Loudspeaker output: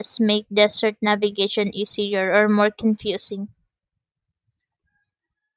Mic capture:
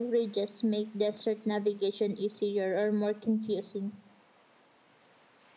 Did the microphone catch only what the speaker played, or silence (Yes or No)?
Yes